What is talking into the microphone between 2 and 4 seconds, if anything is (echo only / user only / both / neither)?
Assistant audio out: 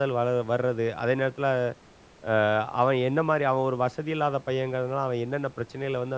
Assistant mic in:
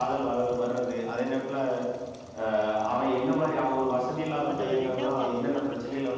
echo only